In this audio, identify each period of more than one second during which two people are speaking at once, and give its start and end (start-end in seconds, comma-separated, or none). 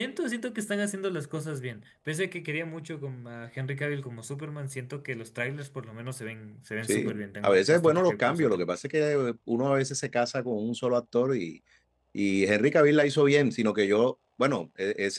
6.8-8.7